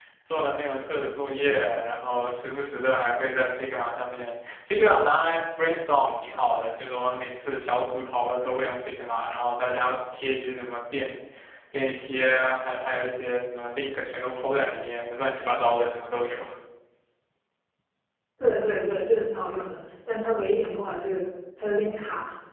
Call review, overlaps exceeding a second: none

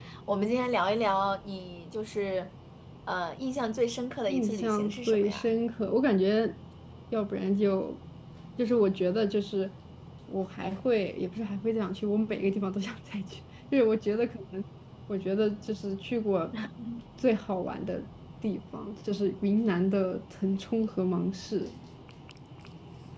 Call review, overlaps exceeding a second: present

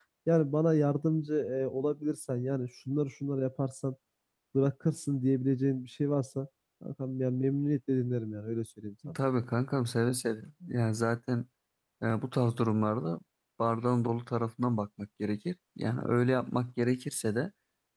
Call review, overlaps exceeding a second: none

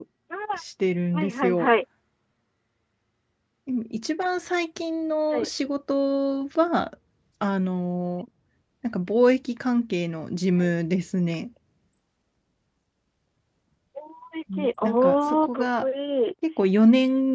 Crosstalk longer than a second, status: present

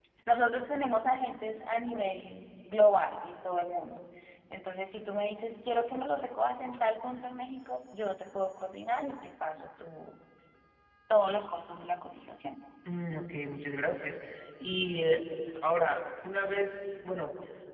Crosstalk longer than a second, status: none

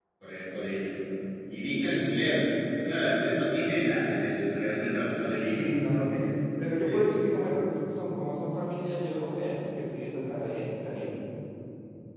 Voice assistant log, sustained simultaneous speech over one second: none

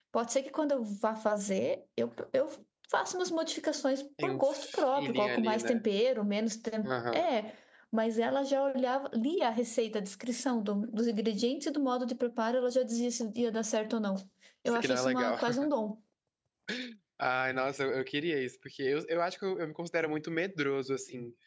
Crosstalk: present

